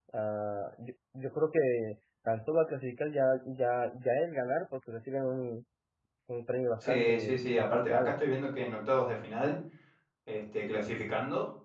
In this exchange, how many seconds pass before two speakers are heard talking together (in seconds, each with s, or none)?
6.9 s